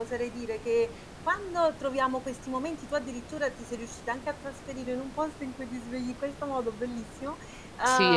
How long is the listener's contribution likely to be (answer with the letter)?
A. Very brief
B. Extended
B